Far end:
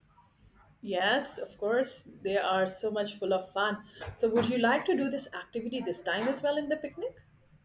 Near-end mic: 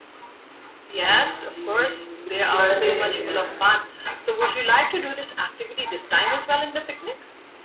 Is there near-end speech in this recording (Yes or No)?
Yes